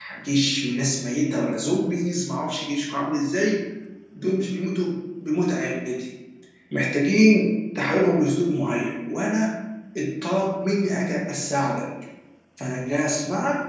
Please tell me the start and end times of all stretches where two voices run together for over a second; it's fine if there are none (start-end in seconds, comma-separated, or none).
none